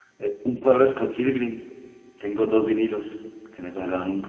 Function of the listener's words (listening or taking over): taking over